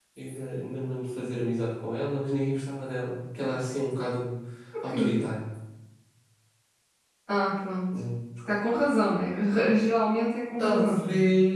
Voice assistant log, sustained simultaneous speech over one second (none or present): none